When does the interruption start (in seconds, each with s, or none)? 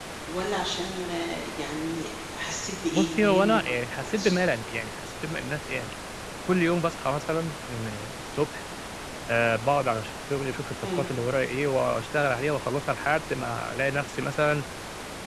2.9 s